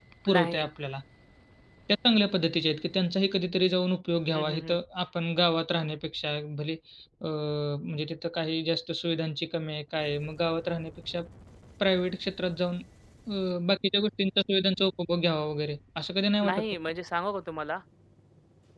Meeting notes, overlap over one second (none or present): none